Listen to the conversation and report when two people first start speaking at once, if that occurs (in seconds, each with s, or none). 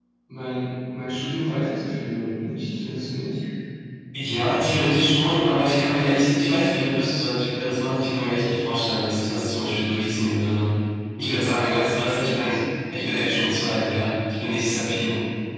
11.2 s